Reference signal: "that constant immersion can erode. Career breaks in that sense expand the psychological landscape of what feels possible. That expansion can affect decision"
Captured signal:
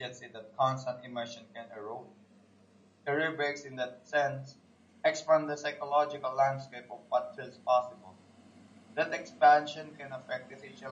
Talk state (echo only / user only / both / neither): echo only